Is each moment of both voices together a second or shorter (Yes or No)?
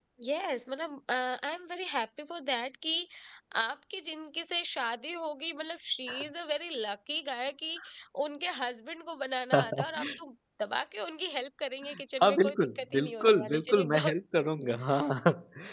No